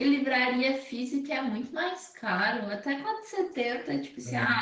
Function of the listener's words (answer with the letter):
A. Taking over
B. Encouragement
B